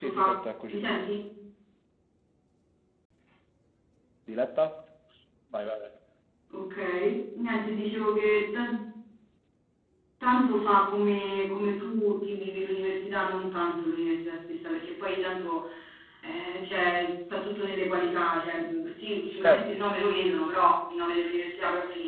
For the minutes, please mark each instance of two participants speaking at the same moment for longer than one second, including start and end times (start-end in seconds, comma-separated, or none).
none